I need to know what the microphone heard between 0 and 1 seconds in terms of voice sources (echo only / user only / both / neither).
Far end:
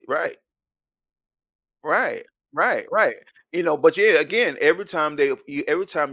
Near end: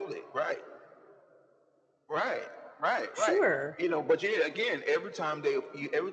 echo only